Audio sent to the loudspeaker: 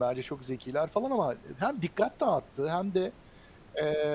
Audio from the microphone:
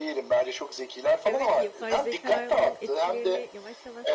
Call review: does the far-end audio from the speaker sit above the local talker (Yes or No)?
Yes